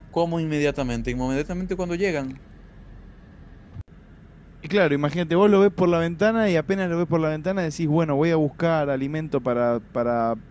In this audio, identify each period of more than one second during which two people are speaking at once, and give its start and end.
none

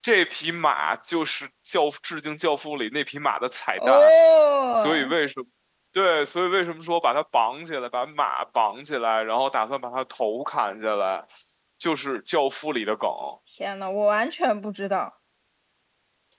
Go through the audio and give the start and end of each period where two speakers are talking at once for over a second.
none

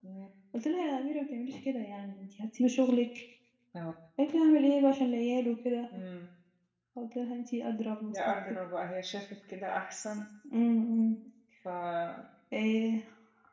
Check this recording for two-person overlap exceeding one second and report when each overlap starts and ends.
none

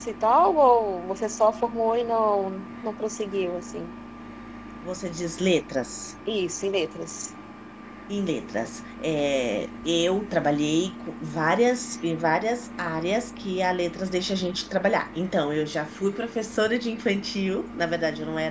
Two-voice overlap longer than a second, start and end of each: none

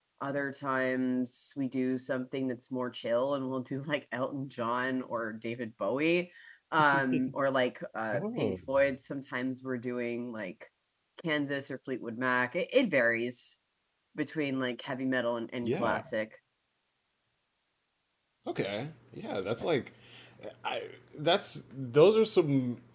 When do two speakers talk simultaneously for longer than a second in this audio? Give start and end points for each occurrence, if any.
none

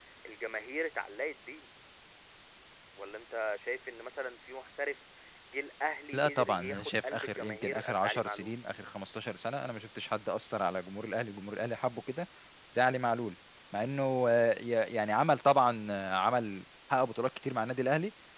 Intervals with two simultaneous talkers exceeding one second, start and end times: 6.1-8.5

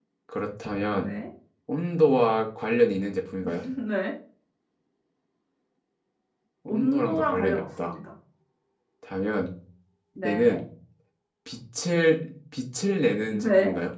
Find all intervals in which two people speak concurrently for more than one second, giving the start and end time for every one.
6.7-7.9

